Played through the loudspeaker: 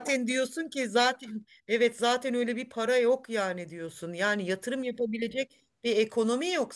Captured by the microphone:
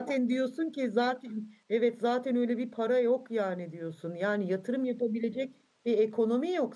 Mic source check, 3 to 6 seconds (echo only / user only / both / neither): echo only